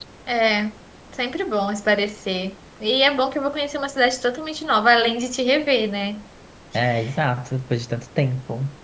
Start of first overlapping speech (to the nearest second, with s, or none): none